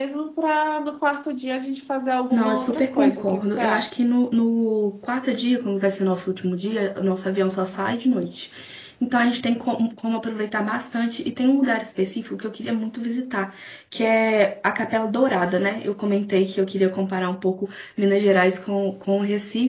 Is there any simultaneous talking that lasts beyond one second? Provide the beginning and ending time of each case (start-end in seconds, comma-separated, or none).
2.3-3.9